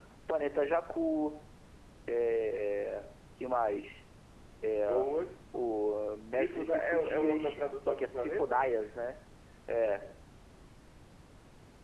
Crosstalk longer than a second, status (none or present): present